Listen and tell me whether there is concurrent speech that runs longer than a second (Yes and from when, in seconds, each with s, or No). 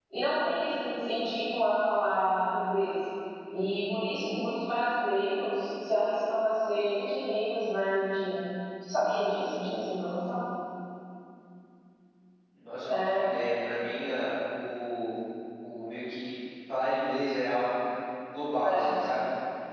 No